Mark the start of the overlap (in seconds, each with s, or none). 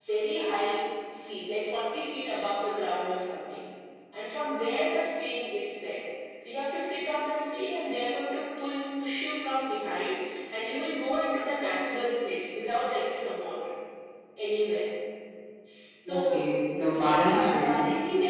16.1 s